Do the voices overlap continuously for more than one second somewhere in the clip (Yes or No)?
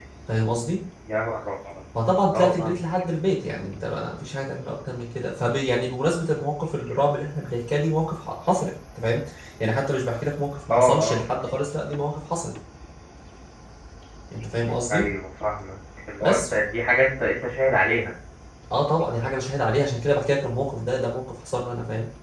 No